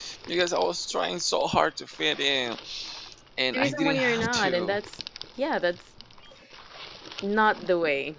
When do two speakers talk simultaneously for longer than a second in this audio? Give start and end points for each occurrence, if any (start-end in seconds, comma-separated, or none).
3.5-4.7